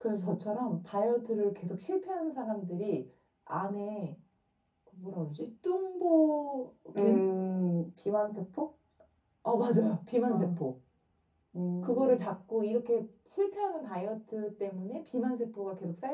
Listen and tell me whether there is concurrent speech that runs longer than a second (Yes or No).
No